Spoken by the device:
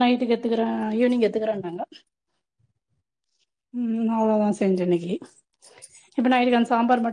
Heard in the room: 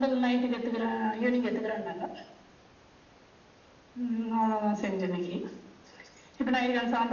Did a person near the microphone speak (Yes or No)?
No